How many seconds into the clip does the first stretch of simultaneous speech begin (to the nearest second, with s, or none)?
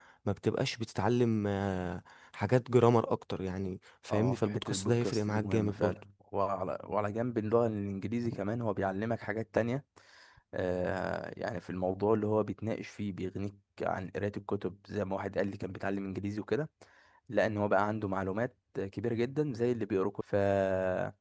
4 s